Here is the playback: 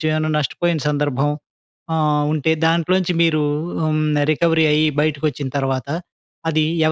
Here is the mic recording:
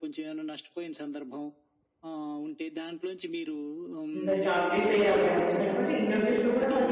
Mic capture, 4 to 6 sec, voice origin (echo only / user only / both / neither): both